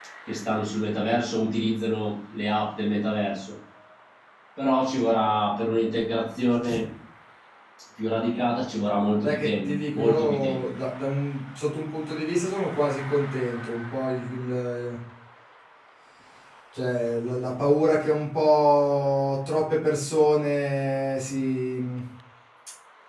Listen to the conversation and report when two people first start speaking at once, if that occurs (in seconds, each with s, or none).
9.2 s